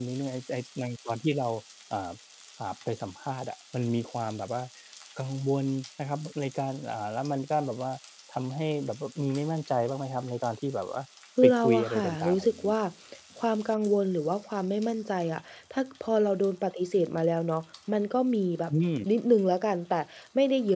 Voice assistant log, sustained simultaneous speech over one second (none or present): present